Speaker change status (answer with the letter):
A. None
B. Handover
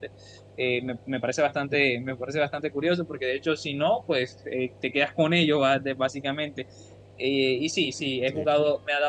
A